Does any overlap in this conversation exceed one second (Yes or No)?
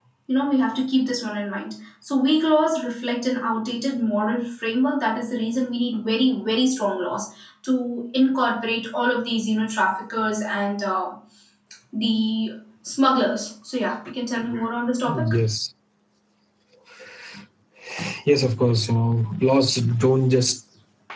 No